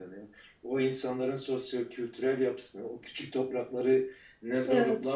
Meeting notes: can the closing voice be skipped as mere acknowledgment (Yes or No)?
Yes